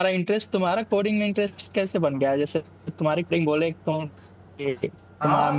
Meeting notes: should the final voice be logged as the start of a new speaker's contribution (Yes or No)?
No